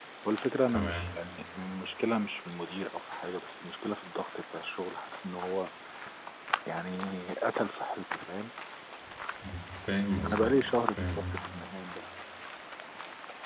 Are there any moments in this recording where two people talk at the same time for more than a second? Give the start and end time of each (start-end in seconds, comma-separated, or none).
none